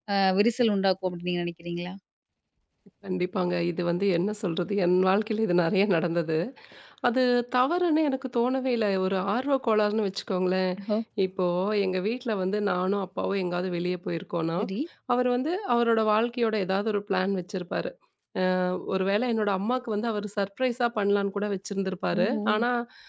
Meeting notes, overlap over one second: none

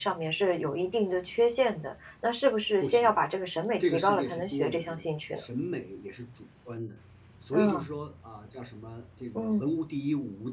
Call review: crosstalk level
present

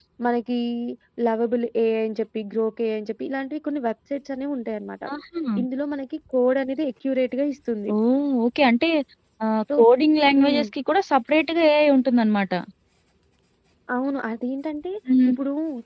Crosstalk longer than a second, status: none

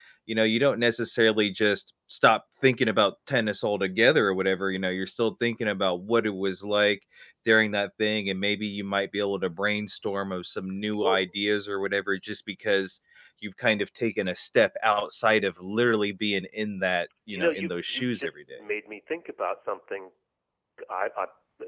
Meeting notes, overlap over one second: present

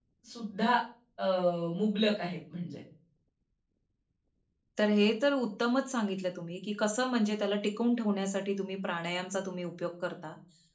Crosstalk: none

